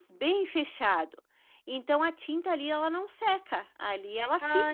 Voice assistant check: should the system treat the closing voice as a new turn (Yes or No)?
Yes